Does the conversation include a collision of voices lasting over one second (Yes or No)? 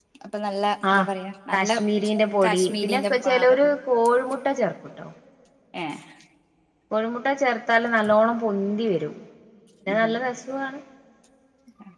Yes